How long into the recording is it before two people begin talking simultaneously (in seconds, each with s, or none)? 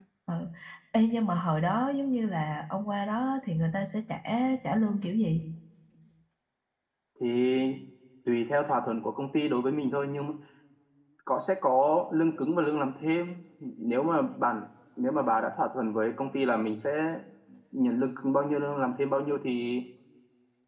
none